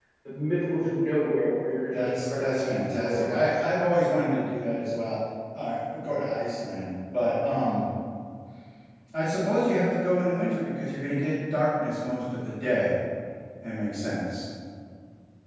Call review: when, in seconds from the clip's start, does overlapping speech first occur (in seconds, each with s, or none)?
1.9 s